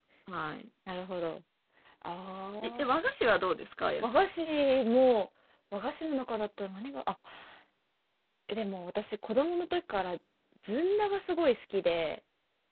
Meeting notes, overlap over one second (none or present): none